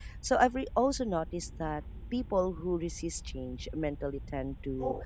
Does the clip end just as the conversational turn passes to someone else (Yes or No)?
No